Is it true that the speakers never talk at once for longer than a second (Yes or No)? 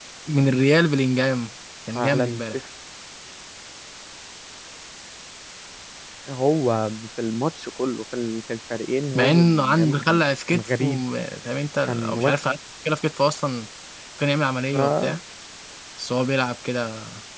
No